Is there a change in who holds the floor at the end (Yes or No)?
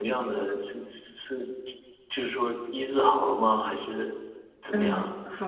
Yes